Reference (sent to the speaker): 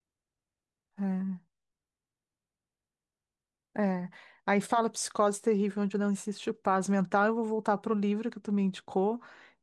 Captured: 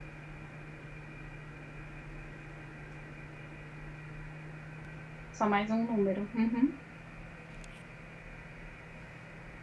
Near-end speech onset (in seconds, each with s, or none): 5.3 s